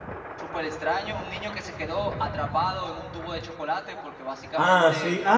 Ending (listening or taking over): taking over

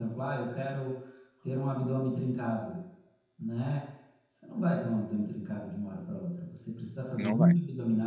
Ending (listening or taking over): listening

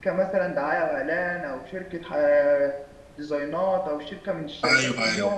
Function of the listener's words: taking over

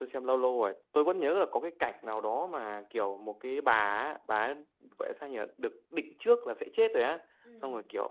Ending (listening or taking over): listening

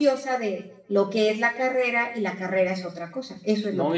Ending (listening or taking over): taking over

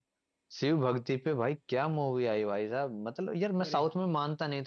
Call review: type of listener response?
listening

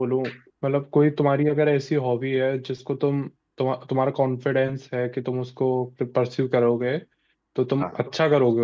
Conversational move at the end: listening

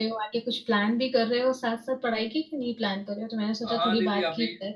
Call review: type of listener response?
taking over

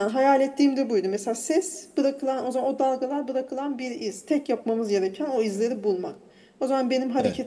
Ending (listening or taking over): listening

